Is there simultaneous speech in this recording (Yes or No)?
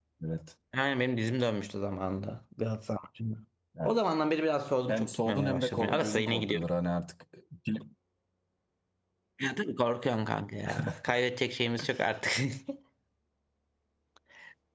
Yes